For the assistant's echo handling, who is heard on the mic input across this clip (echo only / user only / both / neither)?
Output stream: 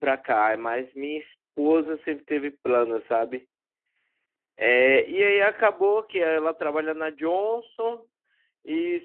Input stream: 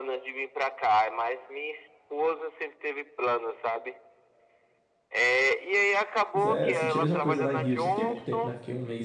both